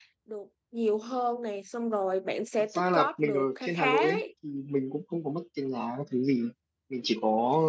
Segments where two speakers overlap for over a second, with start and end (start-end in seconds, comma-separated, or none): 2.7-4.2